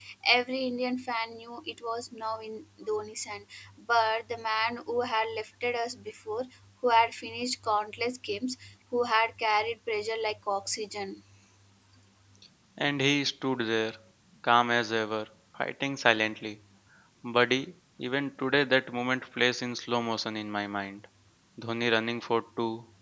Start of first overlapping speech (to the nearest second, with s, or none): none